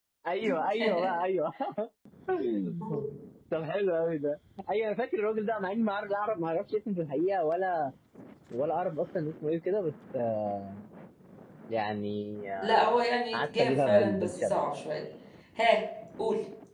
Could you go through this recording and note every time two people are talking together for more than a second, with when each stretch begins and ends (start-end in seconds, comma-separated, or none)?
13.3-14.6